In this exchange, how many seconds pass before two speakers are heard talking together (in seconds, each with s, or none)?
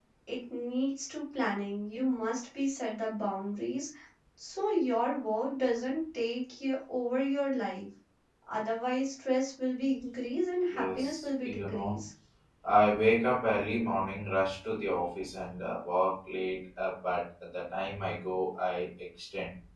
10.7 s